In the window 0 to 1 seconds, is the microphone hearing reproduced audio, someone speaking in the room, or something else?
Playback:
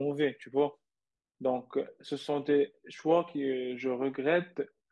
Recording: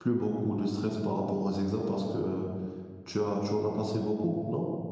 user only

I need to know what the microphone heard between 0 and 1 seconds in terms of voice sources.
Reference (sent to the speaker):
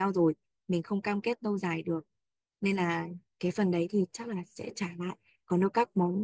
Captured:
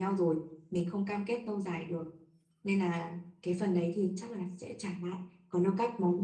echo only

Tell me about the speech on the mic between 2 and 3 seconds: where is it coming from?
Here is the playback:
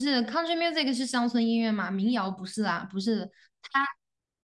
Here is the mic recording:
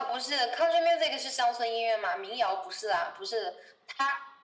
echo only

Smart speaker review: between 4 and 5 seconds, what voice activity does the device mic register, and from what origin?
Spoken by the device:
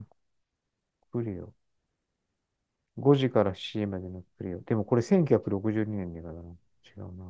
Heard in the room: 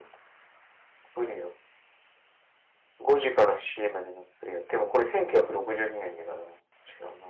echo only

